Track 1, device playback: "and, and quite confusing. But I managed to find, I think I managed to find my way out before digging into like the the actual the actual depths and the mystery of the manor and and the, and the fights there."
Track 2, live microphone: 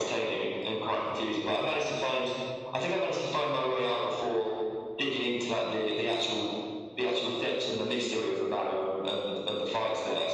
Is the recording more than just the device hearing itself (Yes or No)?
No